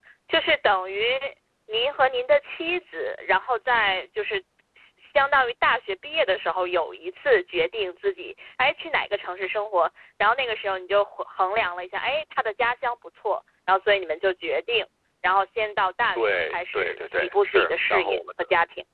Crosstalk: present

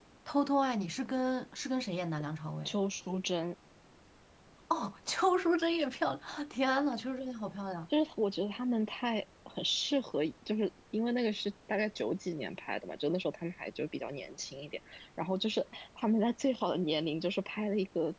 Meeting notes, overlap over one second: none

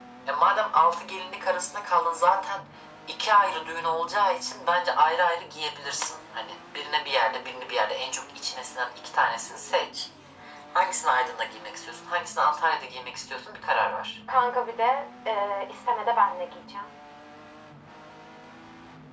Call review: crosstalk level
none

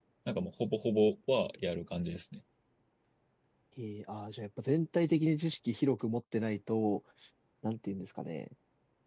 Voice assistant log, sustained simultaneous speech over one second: none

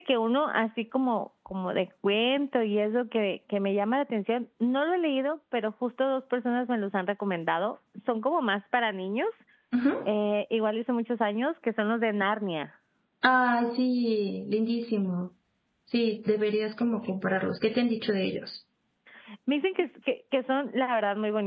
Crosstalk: none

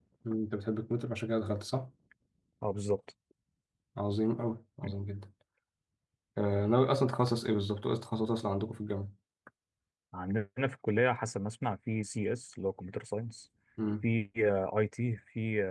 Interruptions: none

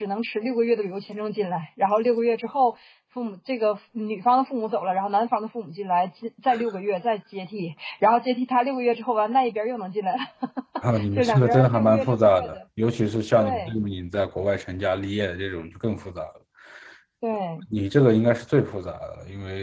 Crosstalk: present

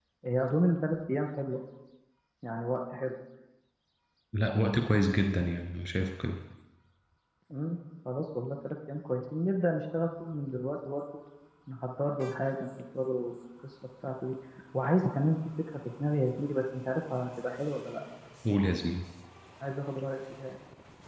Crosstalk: none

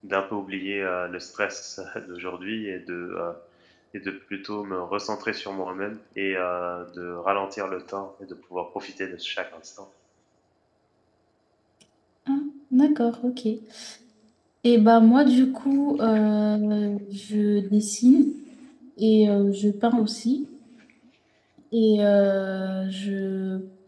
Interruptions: none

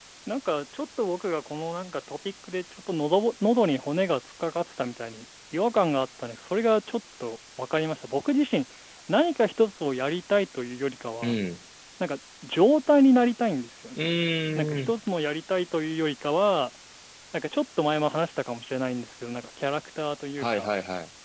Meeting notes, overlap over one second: none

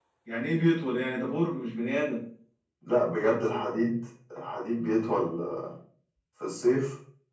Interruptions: none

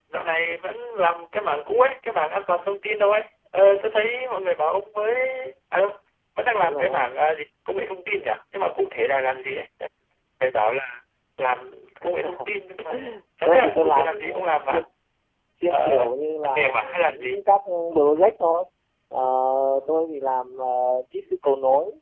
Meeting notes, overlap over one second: present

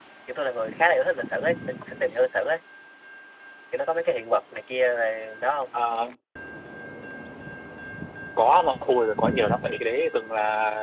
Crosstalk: none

